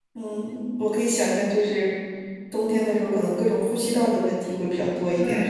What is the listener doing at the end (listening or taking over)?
taking over